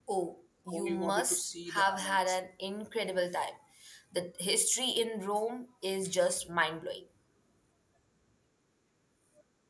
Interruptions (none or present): present